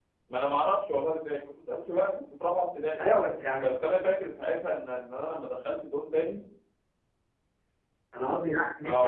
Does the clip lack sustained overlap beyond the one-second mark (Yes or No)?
Yes